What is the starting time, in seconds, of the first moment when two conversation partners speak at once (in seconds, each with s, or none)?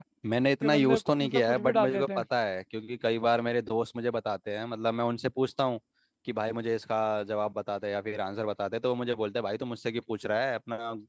0.6 s